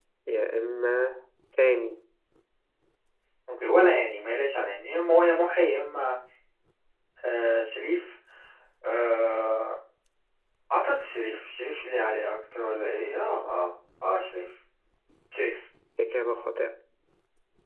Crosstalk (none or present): none